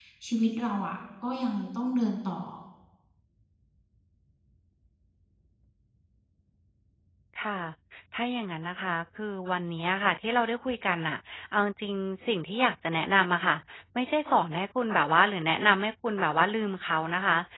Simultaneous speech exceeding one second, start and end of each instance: none

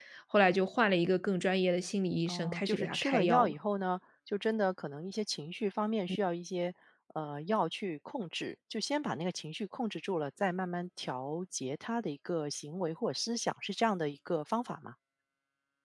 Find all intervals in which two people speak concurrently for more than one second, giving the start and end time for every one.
2.2-3.5

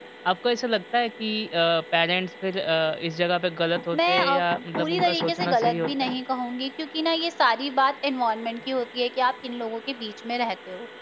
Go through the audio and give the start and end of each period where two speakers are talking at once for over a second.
4.8-6.1

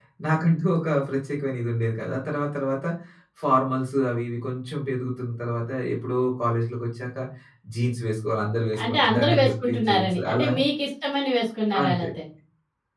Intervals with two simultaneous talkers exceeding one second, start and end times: 8.8-10.5

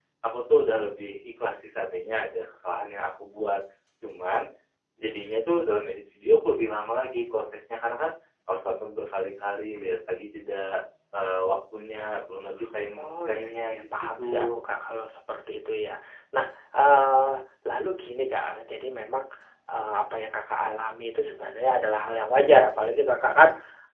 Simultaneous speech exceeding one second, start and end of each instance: 12.9-14.6

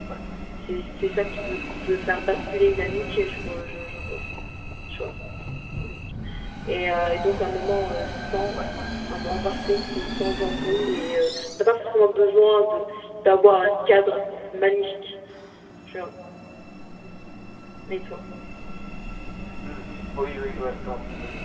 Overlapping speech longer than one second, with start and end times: none

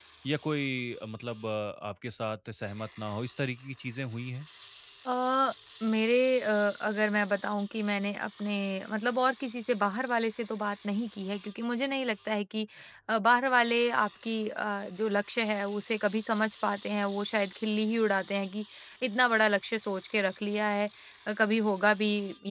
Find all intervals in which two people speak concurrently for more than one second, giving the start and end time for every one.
none

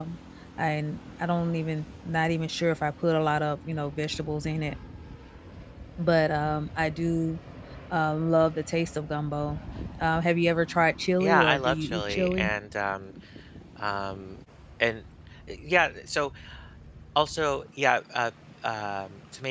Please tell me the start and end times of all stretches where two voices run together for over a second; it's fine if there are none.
11.2-12.5

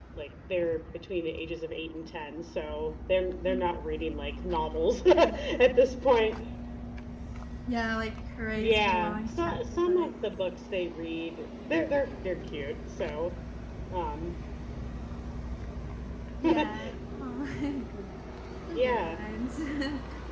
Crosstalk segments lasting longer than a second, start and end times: 8.6-10.2

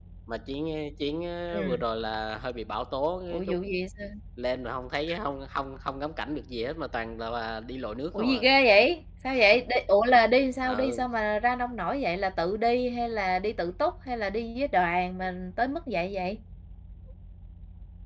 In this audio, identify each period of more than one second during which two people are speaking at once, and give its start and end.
none

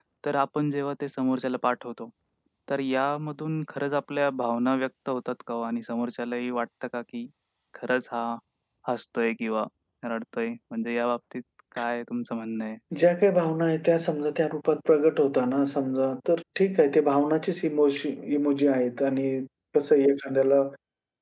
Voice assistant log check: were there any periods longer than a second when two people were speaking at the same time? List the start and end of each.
none

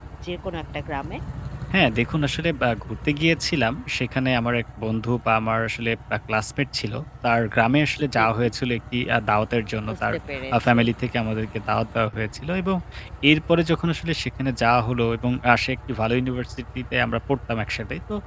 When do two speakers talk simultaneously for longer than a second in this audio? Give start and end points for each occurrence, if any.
none

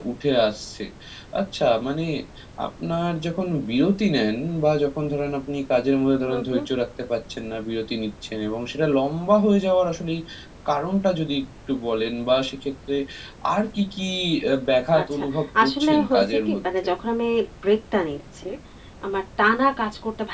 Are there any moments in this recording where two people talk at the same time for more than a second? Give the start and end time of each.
15.6-16.9

